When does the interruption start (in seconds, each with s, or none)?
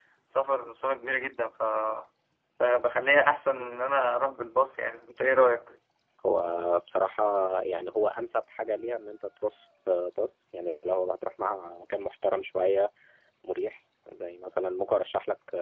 none